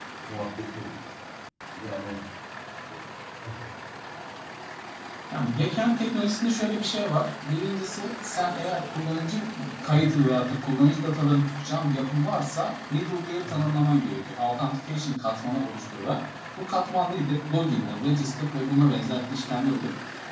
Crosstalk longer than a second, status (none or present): none